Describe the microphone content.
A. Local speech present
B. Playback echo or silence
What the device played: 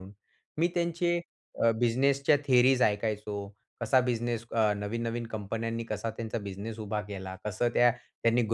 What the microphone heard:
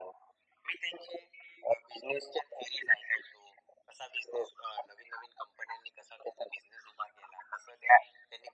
B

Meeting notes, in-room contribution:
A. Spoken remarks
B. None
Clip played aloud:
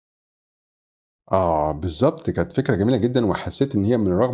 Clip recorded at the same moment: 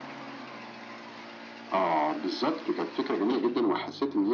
B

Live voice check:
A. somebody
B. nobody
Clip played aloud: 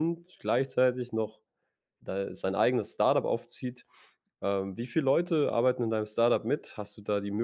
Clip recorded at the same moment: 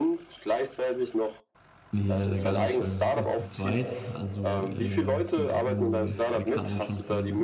A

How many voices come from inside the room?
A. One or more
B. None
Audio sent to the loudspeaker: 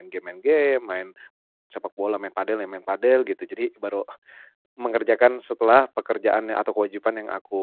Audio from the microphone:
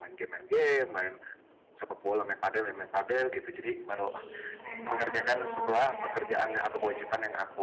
A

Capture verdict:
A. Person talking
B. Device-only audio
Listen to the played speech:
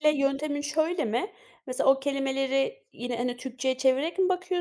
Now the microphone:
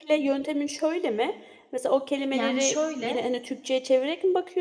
A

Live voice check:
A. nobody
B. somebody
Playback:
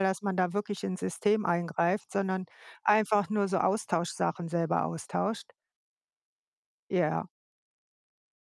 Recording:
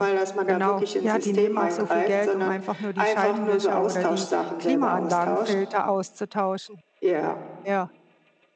B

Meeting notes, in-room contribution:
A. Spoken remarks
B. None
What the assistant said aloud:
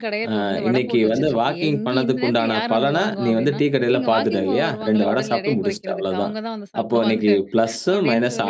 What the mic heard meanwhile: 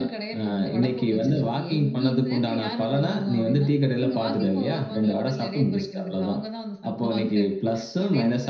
B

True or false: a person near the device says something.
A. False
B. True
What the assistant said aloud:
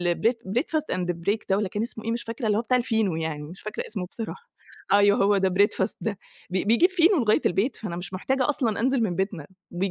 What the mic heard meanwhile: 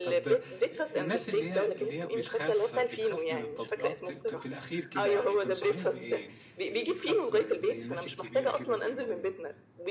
B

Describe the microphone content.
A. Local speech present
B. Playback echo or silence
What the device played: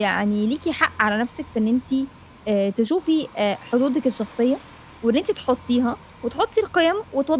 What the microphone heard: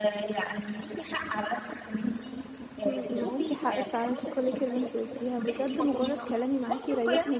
A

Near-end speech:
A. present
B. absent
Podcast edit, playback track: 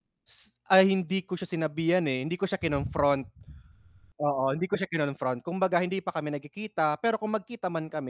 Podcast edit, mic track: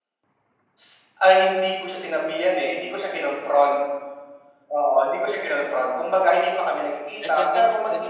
A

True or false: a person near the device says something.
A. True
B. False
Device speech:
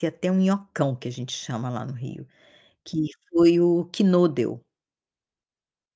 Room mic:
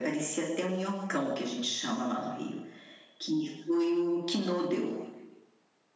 B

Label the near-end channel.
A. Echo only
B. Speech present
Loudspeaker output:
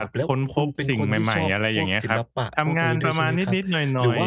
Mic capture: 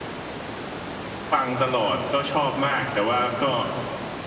B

